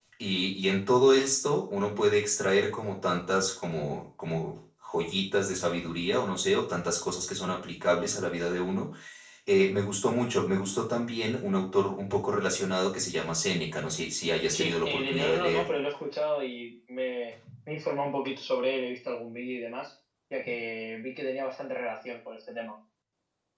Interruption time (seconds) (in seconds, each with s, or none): 14.5 s